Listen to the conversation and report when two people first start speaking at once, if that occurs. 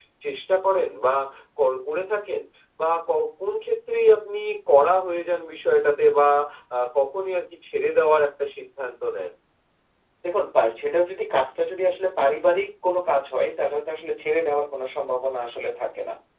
none

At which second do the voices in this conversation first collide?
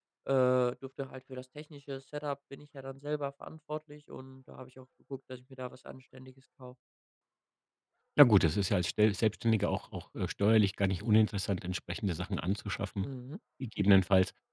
none

